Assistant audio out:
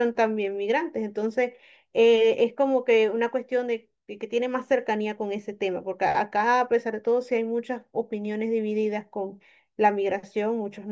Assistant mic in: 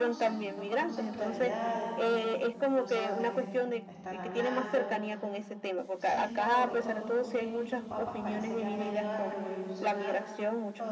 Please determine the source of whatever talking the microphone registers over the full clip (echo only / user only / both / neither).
both